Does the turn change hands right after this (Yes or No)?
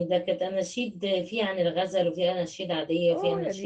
Yes